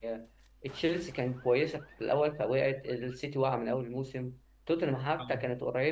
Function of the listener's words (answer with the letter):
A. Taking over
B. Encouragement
B